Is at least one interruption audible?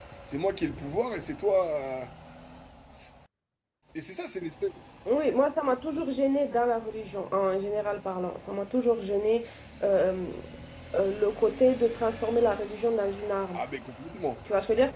No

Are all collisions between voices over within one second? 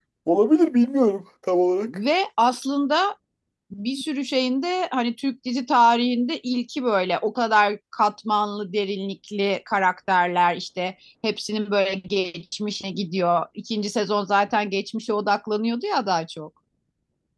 Yes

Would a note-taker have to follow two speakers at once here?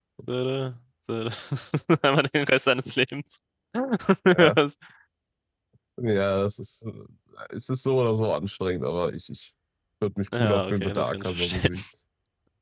Yes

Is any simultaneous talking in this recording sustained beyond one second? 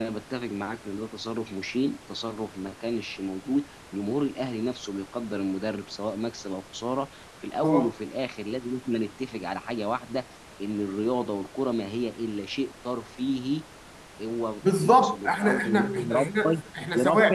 Yes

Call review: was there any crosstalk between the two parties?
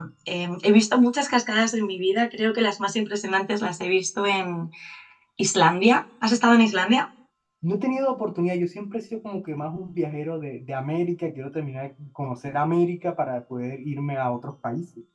No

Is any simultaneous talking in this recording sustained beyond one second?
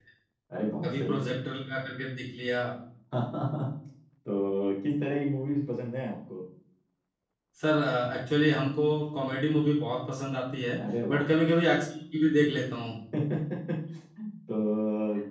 No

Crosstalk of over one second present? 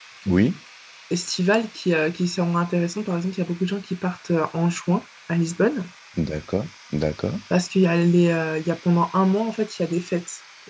No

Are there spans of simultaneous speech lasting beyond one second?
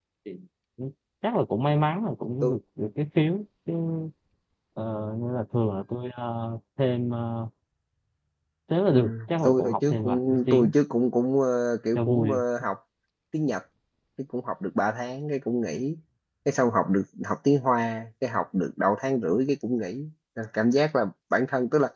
Yes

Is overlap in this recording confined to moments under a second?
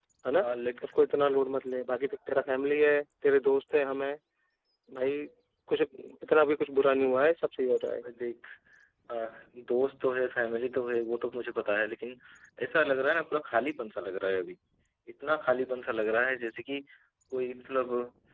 Yes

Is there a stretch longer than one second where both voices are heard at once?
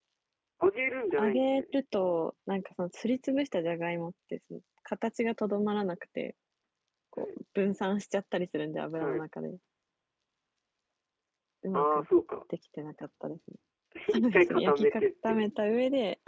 Yes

